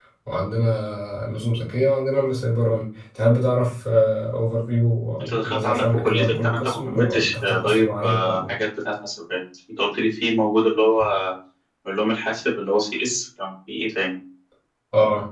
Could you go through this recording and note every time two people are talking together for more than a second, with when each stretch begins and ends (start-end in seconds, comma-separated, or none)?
5.2-8.4